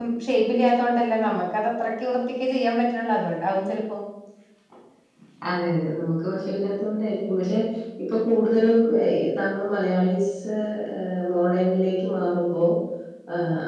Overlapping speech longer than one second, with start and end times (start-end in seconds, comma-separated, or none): none